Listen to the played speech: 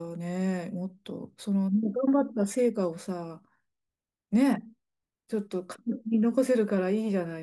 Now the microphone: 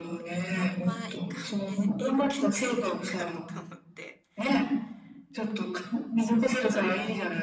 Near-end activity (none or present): present